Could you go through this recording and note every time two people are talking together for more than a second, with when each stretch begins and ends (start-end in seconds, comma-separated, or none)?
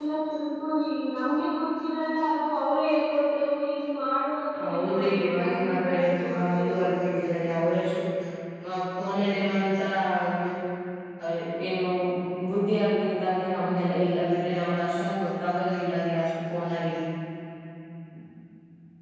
4.6-6.8